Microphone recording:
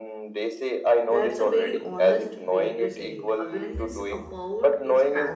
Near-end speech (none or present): present